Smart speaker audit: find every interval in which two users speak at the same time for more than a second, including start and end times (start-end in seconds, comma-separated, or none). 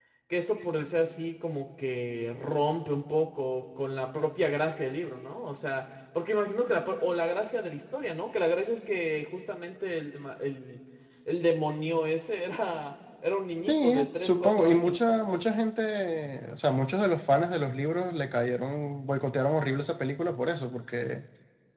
13.6-15.0